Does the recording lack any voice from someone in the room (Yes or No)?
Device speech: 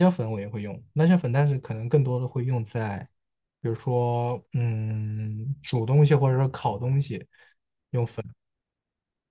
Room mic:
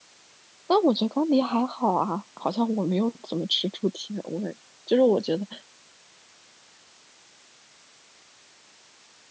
No